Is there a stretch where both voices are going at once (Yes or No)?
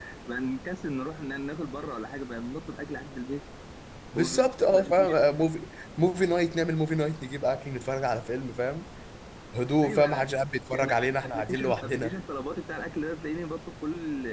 Yes